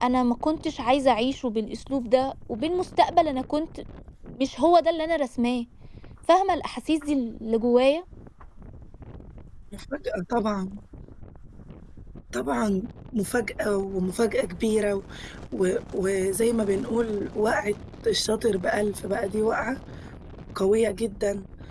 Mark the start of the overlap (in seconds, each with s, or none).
none